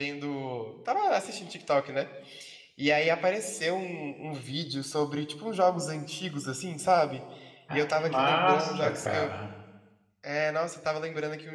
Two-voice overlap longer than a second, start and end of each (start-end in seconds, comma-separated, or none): 7.7-9.3